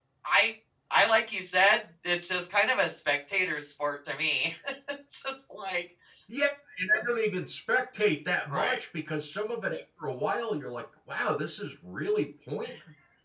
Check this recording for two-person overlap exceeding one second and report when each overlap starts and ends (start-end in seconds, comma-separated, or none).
none